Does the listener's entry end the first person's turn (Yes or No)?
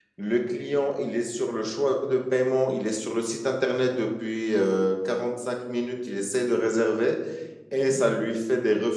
No